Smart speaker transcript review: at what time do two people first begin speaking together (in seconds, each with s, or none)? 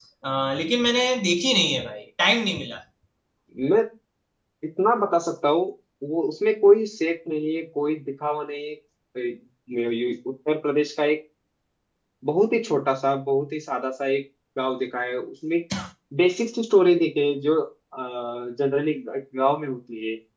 none